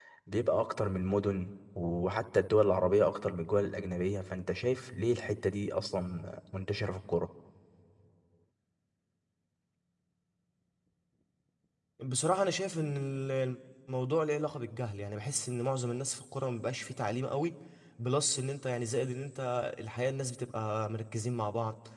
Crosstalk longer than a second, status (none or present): none